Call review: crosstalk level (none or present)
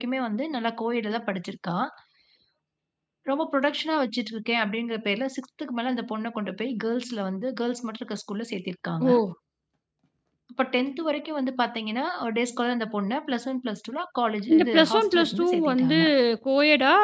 present